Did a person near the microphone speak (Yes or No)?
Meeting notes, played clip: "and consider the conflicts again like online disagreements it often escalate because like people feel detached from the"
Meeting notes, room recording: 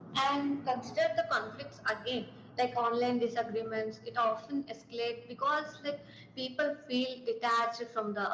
No